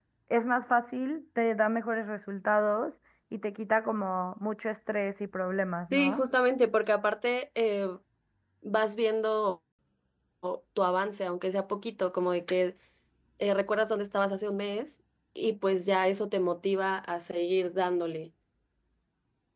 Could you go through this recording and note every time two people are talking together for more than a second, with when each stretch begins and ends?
none

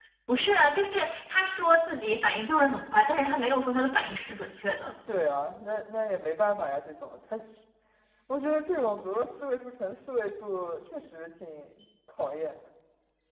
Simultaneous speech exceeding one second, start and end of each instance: none

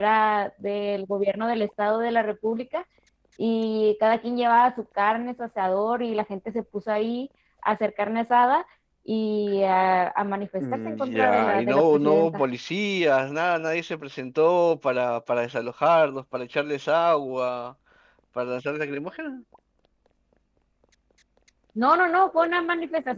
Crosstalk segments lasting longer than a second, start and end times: 10.6-12.4

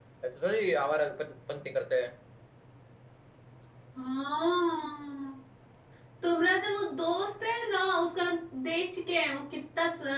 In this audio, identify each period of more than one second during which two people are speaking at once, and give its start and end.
none

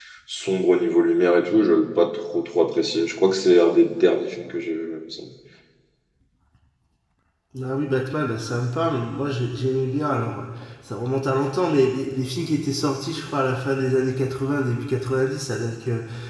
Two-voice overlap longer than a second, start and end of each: none

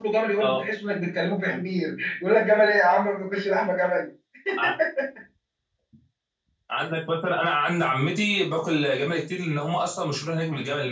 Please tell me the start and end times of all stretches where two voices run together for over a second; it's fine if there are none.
none

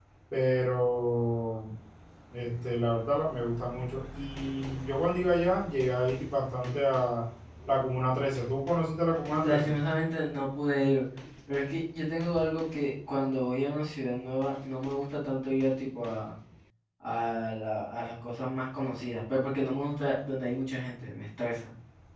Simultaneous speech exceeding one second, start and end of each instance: none

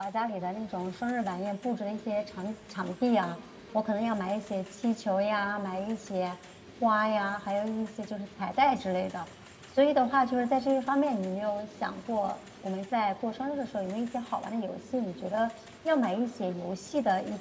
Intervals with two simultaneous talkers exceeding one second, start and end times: none

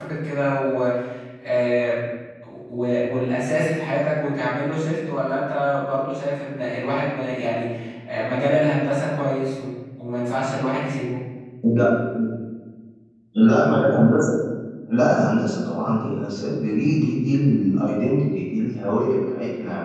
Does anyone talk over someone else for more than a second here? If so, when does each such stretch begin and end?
none

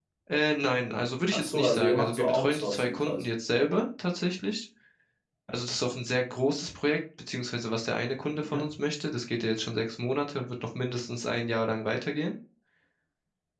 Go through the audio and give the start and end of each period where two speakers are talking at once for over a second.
1.3-3.2

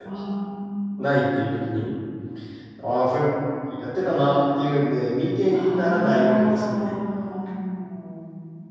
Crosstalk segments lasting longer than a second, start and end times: 5.5-6.9

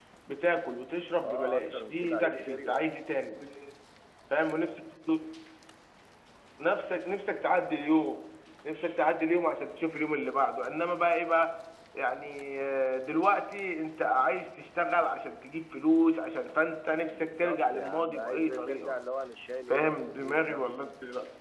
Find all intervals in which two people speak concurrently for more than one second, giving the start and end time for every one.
1.2-3.0, 17.1-18.9, 19.6-20.9

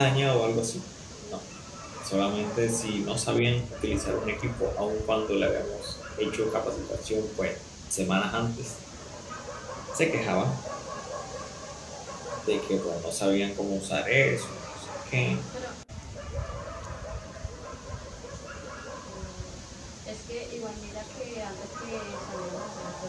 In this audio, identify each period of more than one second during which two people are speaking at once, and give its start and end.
none

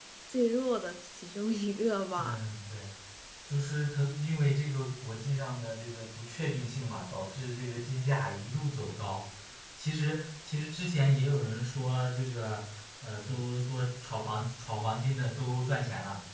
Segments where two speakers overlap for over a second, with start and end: none

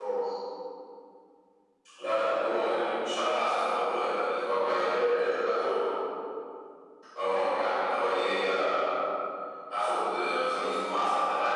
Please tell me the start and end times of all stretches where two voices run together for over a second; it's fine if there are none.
4.5-5.8

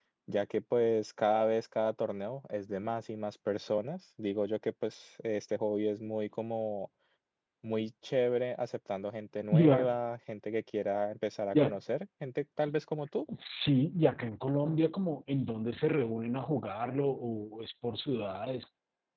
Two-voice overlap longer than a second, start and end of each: none

